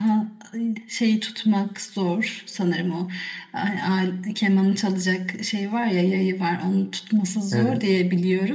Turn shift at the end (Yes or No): No